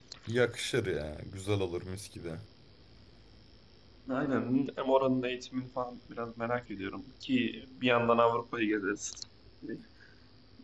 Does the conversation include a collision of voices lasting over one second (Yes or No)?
No